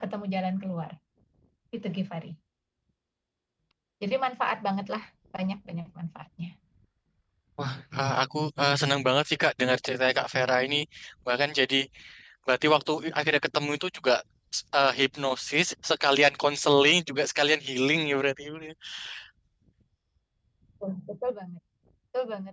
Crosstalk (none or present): none